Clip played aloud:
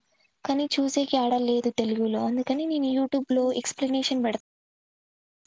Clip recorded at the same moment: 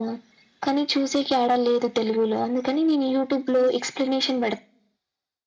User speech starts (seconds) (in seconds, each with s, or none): none